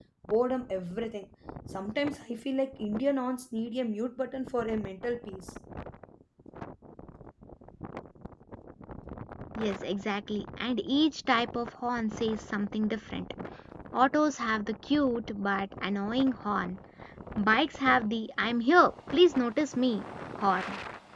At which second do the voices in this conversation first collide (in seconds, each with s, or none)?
none